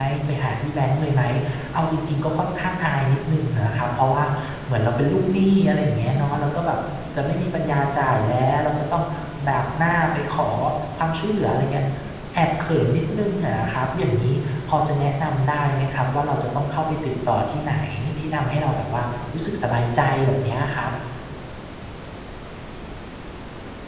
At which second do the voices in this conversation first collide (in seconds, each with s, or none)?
none